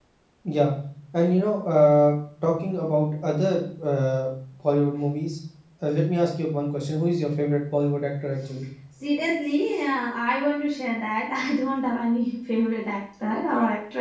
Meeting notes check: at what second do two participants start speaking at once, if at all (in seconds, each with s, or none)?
none